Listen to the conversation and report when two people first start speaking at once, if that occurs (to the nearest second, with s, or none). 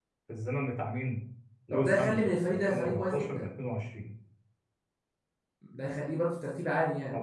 2 s